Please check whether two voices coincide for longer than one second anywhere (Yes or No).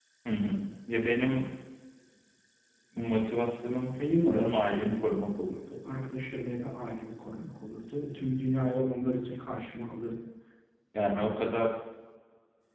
Yes